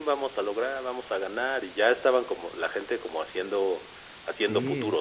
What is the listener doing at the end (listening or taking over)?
taking over